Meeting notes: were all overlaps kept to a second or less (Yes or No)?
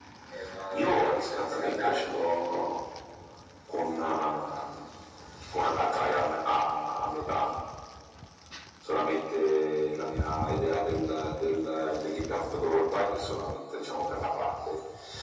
No